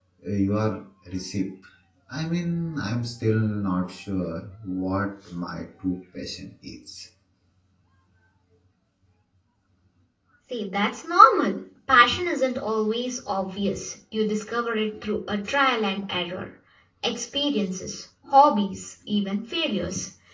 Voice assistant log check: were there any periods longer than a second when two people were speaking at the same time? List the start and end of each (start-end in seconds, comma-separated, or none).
none